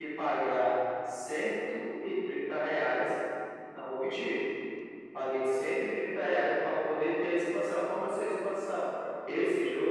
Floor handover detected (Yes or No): No